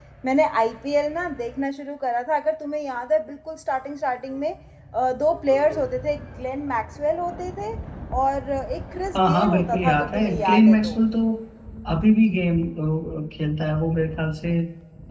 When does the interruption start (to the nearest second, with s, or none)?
9 s